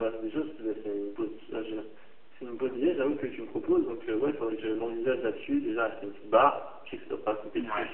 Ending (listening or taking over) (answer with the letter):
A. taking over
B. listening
B